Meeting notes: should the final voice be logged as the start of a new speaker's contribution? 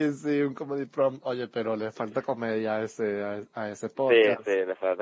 Yes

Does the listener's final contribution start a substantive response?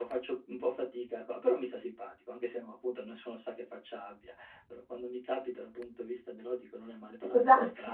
Yes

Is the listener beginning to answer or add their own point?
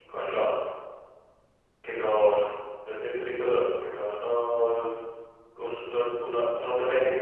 No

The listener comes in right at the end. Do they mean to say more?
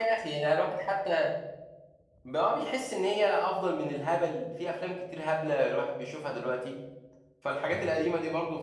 No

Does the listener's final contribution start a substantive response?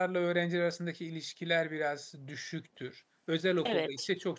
No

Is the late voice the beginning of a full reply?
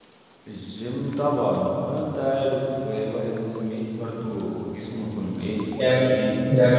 Yes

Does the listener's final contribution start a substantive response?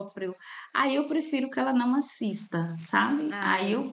No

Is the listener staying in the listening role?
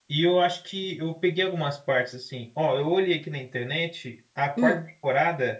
Yes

